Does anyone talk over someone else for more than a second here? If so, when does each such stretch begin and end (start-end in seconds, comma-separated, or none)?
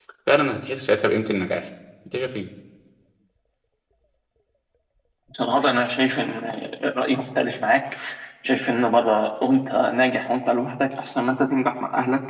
none